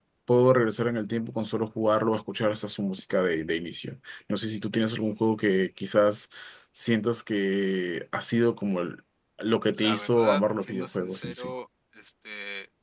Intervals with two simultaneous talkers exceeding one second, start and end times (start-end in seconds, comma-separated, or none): 9.8-11.5